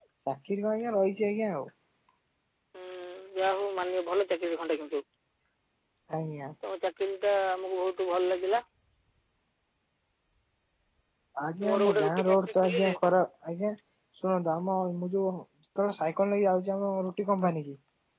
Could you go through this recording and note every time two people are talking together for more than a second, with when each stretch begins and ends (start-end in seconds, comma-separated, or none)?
11.7-12.9